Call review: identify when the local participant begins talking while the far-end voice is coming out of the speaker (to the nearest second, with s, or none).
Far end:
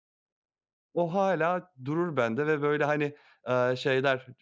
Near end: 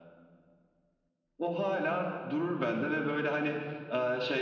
none